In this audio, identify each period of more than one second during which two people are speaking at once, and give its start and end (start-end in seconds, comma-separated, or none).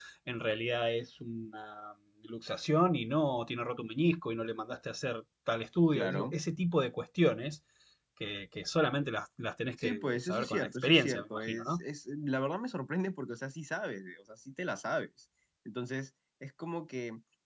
9.8-11.8